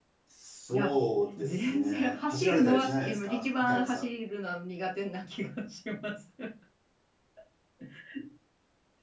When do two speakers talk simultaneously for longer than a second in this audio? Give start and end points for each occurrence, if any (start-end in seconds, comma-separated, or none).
1.4-4.1